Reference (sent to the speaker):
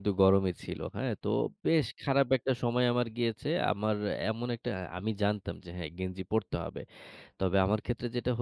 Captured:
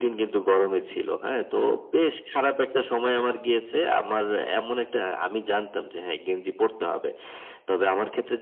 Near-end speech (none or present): none